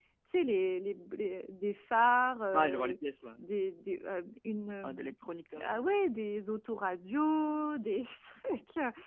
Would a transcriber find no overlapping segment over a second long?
Yes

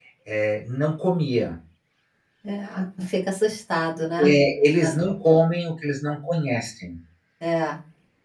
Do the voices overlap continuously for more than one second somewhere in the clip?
No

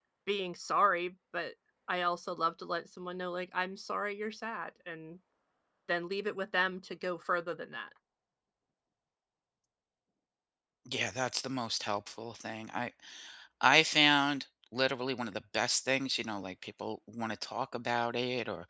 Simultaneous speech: No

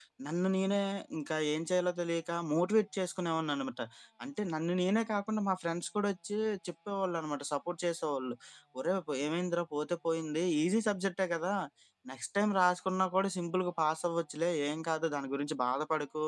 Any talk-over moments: No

